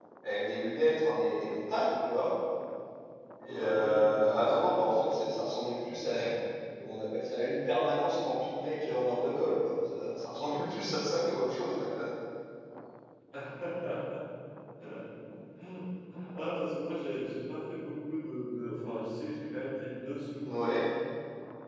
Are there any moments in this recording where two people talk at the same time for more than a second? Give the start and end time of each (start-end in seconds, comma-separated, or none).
3.5-4.8